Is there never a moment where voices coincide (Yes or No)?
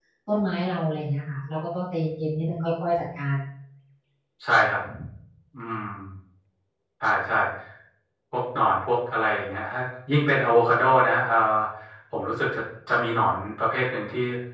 Yes